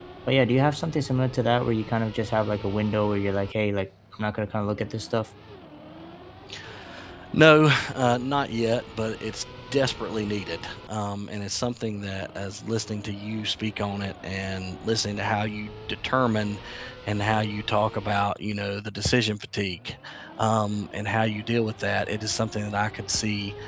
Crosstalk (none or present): none